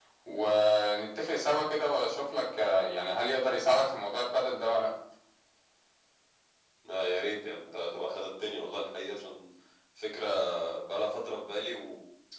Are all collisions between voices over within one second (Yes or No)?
Yes